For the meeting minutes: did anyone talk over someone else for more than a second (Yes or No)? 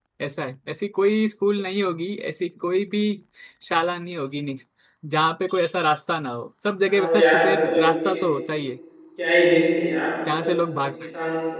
Yes